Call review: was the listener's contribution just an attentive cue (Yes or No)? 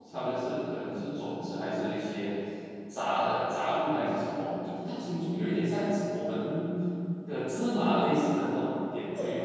No